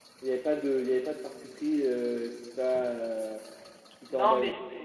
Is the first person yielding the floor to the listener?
Yes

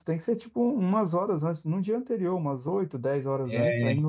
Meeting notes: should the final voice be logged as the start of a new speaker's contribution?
No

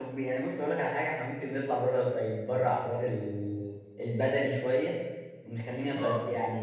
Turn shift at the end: No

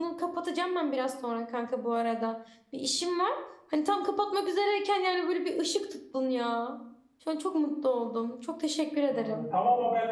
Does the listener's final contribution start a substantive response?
Yes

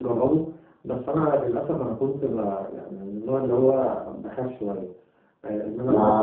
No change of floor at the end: No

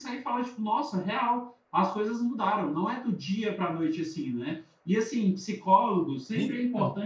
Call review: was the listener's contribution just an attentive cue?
Yes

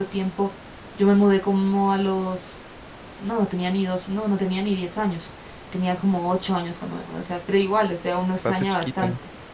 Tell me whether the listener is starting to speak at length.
No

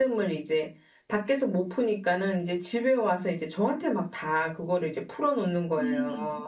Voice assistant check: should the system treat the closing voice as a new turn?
Yes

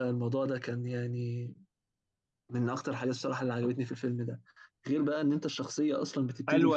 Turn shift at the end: Yes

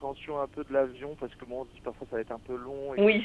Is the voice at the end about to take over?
Yes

